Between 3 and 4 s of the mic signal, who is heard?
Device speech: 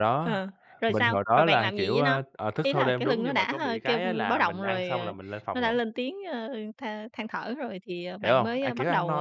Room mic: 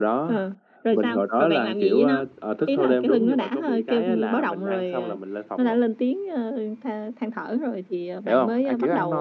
echo only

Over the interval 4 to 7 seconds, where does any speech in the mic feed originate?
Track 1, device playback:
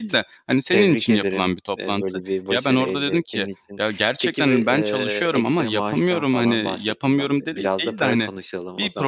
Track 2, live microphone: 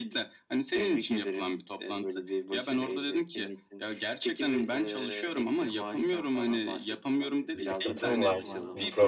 echo only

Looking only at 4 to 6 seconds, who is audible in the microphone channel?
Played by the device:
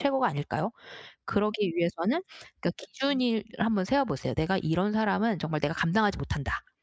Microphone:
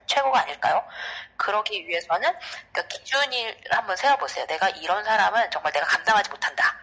echo only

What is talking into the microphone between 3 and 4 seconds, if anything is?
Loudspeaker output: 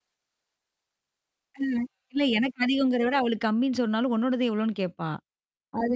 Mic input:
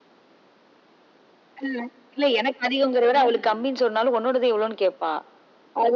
both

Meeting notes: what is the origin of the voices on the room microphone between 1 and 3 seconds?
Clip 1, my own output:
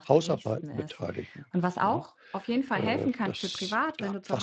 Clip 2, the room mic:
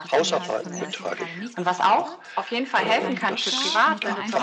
both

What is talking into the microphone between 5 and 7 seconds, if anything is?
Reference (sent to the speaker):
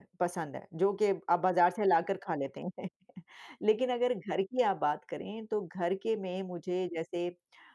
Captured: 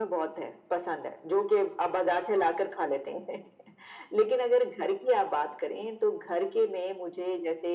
echo only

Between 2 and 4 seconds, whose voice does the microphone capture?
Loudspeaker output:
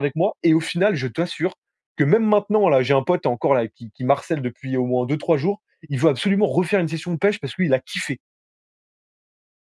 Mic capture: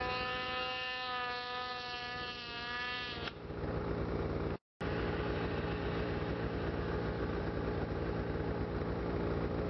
neither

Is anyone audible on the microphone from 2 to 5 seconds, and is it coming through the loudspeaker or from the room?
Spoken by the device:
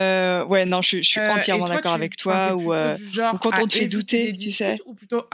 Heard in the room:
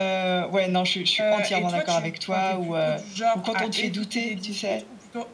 echo only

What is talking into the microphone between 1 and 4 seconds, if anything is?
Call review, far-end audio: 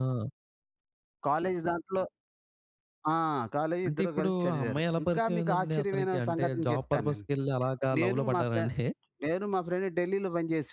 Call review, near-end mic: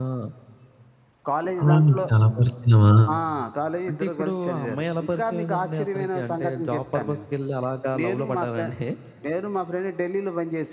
both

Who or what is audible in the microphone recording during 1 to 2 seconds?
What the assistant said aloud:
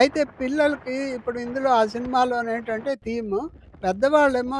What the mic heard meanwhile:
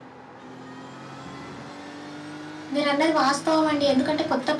neither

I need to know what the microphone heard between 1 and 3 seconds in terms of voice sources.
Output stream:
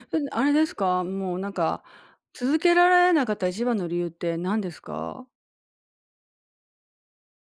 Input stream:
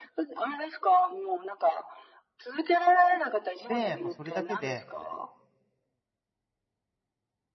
echo only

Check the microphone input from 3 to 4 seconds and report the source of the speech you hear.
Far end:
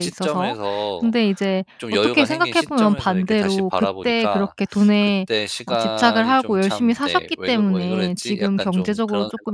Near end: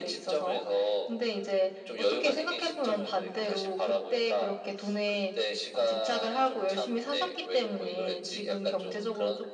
echo only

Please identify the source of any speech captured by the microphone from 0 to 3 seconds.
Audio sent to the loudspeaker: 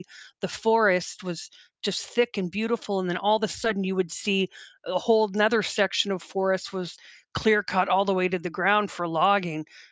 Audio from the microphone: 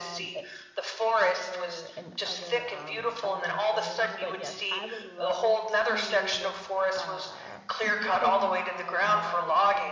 both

